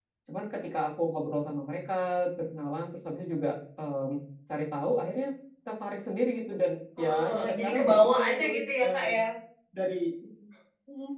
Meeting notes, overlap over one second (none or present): present